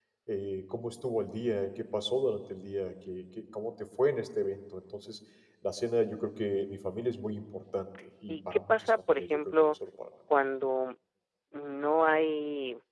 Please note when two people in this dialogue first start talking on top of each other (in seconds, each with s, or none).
8.3 s